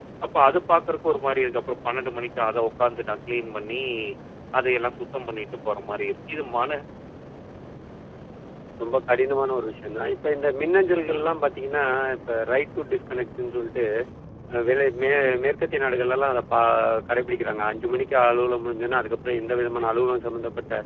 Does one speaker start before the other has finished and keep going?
No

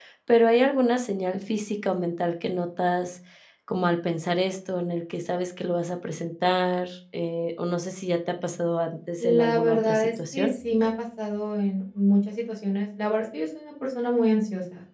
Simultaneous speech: Yes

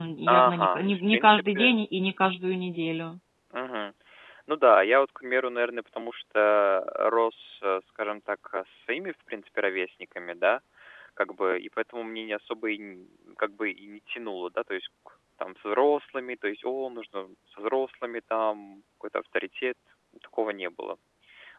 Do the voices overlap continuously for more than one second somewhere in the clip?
Yes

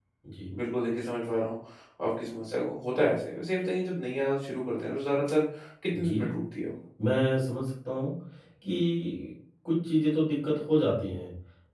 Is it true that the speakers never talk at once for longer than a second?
Yes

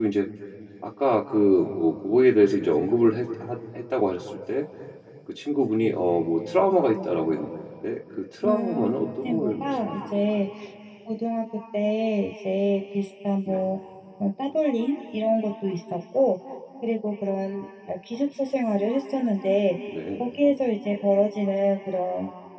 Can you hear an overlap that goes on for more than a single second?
Yes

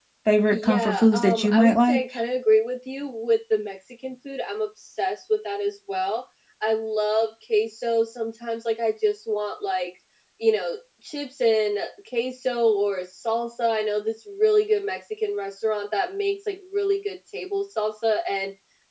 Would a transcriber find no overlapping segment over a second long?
No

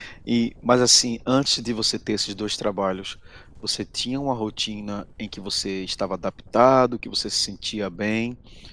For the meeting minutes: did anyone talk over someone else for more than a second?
No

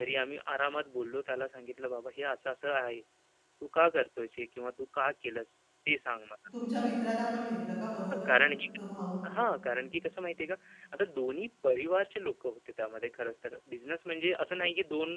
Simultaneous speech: No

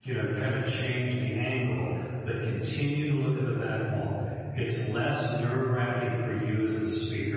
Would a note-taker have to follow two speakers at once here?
No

